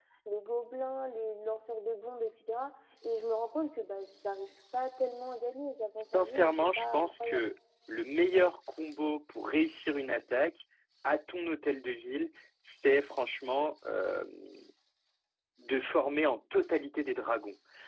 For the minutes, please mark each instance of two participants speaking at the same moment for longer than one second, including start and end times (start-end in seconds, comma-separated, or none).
6.1-7.5